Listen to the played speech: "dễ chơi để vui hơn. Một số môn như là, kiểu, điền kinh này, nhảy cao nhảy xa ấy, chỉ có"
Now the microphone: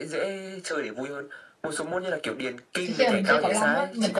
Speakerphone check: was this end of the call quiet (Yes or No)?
No